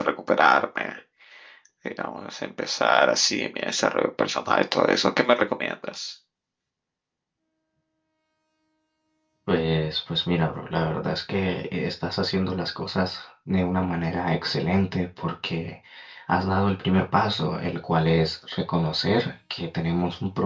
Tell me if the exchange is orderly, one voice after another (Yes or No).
Yes